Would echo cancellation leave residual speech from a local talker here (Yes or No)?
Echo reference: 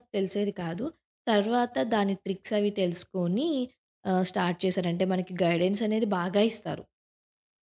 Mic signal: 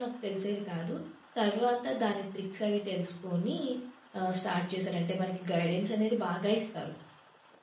No